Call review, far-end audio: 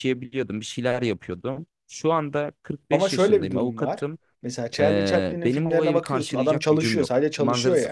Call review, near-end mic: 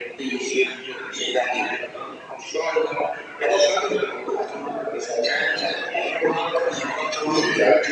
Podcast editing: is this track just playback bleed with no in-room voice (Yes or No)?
Yes